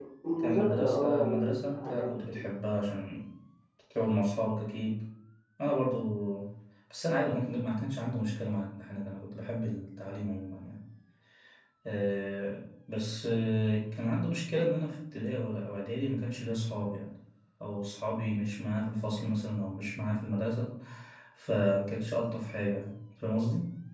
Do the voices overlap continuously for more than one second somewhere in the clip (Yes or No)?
Yes